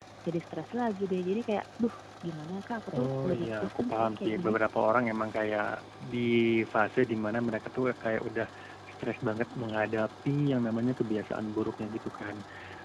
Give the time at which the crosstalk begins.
2.9 s

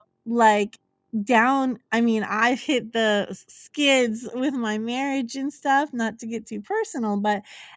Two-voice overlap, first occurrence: none

